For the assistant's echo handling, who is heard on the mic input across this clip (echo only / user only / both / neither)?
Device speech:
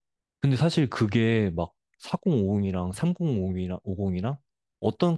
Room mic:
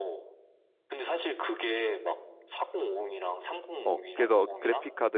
both